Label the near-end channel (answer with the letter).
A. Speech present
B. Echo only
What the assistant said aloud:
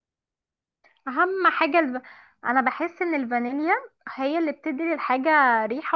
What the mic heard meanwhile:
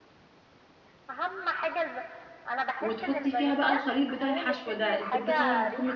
A